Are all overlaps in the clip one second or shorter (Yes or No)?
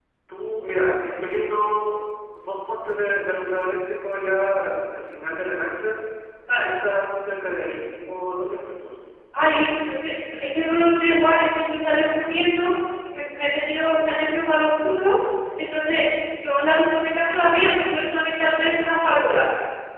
Yes